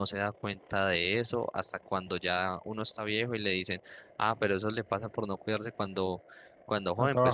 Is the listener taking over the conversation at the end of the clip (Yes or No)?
No